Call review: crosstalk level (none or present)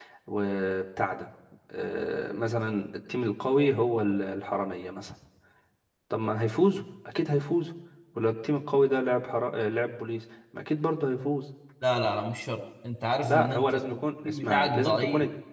present